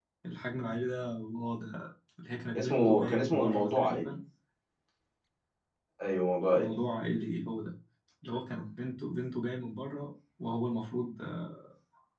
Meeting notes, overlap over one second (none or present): present